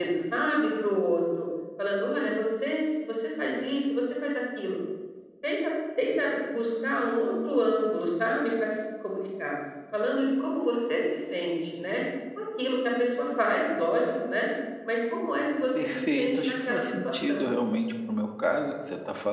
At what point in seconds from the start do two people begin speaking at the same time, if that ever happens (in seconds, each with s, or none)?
15.8 s